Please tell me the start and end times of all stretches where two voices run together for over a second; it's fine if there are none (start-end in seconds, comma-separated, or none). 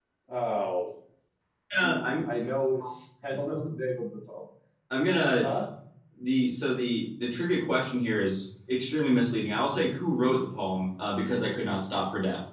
none